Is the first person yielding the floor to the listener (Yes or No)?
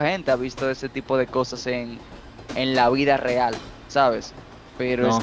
No